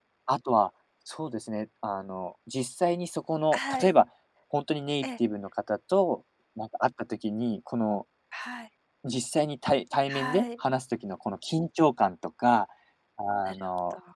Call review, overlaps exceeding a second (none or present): none